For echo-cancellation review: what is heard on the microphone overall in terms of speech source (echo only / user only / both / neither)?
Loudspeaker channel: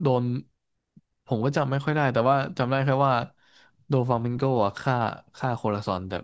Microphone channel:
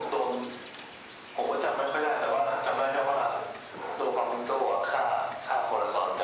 echo only